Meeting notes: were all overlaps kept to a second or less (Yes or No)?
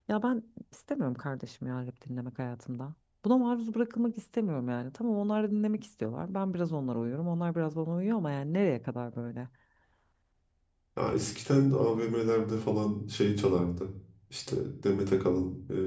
Yes